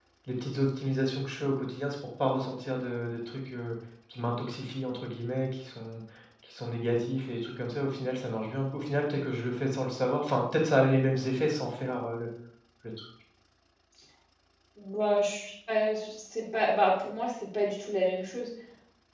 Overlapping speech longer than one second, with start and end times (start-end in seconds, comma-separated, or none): none